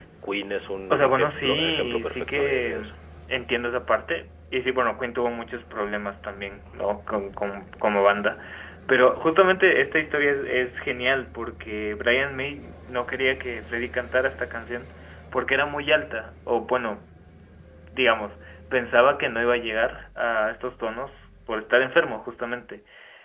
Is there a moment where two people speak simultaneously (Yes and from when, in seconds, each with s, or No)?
Yes, from 0.9 s